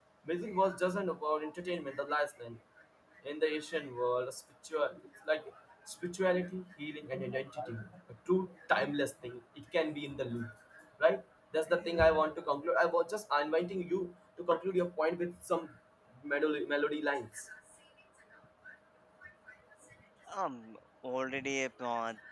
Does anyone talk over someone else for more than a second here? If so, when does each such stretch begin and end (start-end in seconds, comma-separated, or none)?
none